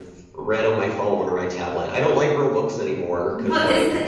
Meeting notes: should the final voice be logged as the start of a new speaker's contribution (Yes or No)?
Yes